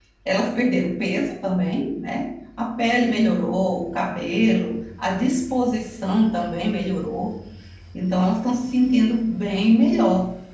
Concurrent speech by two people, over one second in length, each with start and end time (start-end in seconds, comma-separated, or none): none